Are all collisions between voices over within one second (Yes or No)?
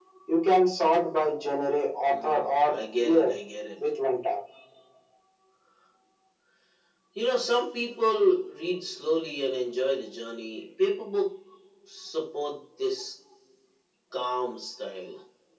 No